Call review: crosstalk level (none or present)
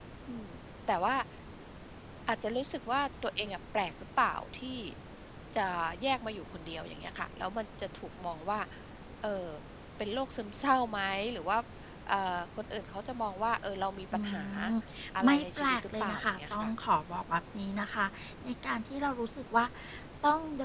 present